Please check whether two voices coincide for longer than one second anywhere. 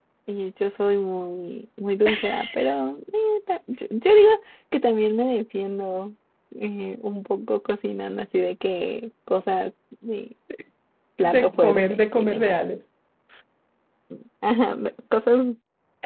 Yes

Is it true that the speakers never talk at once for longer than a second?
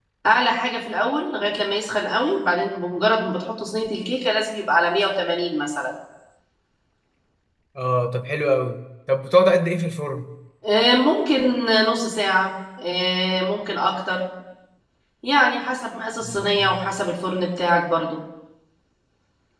Yes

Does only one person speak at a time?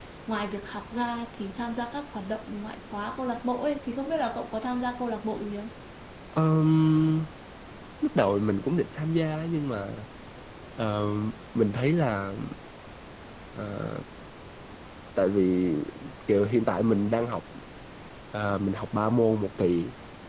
Yes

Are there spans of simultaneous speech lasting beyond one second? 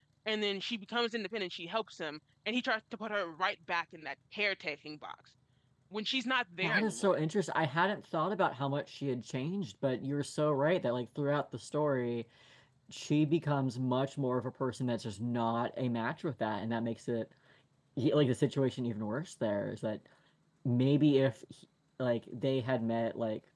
No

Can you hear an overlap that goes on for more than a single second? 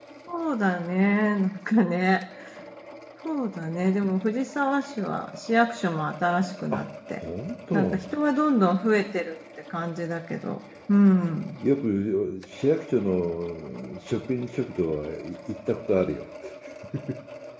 No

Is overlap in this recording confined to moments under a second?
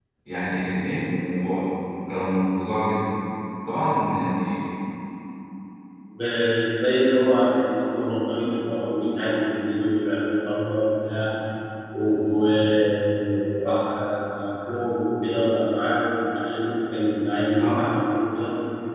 Yes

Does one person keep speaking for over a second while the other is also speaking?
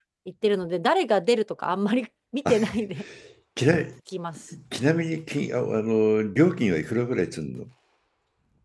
No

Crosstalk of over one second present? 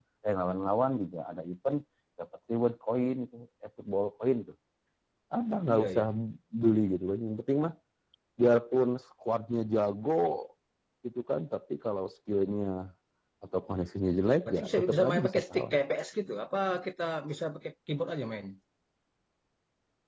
Yes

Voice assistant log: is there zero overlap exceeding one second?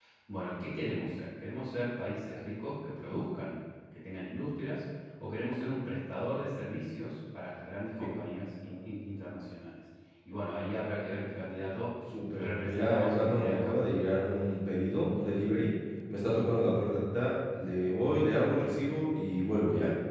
No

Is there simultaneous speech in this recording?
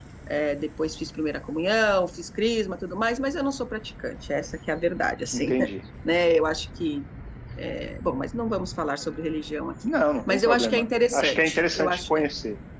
Yes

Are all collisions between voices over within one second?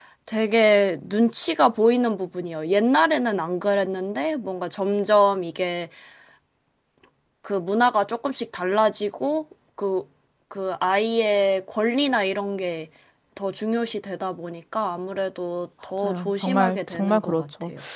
No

